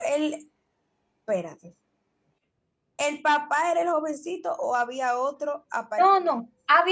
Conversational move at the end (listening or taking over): taking over